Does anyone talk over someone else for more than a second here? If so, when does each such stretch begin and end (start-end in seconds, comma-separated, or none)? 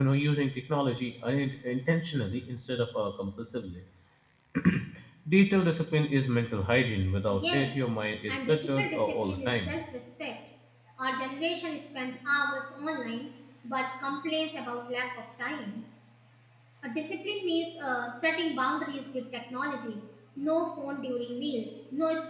8.3-9.8